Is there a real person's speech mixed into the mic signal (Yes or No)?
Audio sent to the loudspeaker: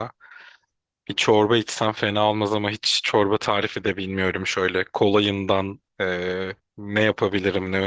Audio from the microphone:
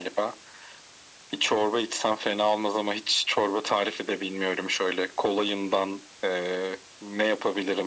No